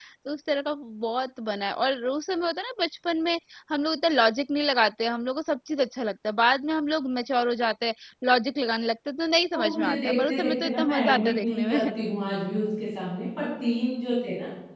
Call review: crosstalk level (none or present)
present